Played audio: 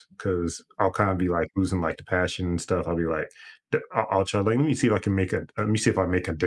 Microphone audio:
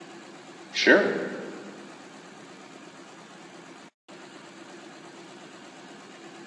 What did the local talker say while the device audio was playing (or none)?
sure,